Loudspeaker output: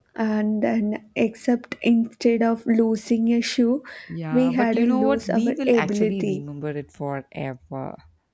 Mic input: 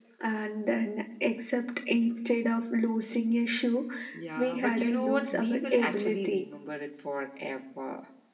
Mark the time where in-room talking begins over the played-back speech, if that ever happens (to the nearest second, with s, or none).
none